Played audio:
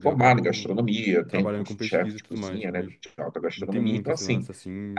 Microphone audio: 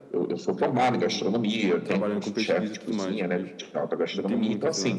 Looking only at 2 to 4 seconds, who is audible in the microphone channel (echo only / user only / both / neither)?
echo only